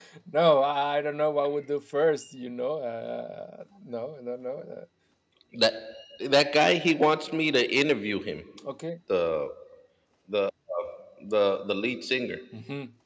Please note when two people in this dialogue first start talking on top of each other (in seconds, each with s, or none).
none